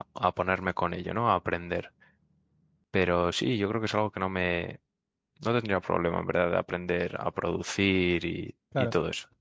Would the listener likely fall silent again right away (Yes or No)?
No